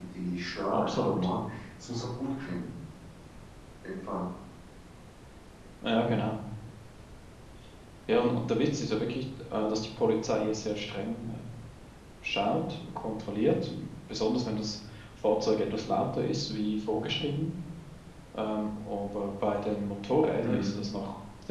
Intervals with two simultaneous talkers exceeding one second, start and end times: none

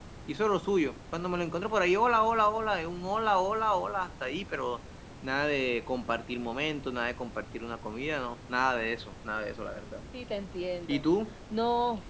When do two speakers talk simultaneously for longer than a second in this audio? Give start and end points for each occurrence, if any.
none

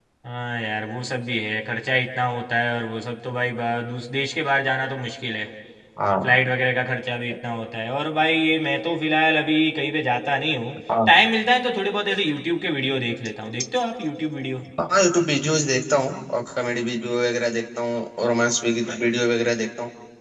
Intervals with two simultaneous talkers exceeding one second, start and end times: none

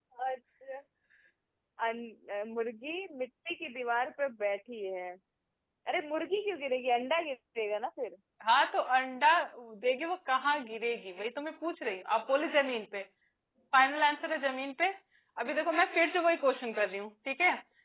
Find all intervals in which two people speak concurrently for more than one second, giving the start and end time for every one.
none

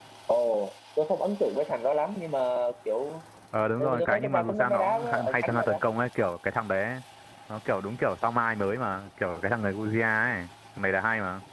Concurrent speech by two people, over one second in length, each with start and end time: 3.8-5.8

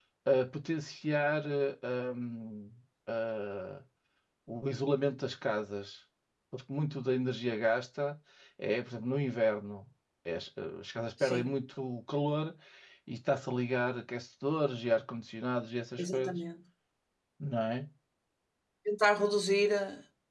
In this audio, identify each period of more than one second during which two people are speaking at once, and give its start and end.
none

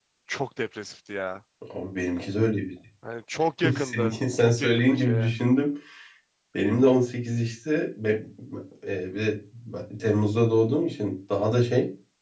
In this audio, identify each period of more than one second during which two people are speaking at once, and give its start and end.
3.7-5.3

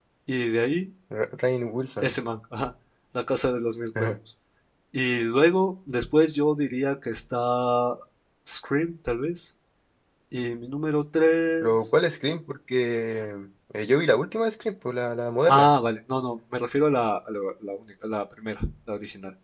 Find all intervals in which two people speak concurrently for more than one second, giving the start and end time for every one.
none

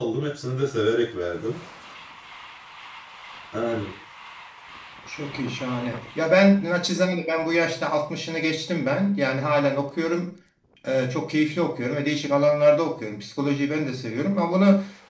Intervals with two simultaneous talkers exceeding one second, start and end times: none

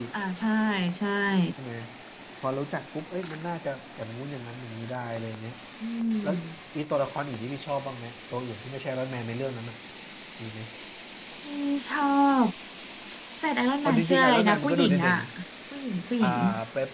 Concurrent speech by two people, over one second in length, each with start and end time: 13.8-15.1

